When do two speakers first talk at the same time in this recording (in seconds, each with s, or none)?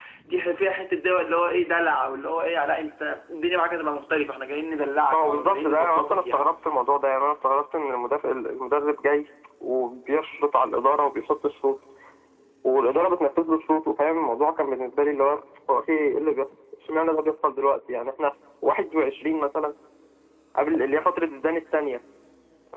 5.1 s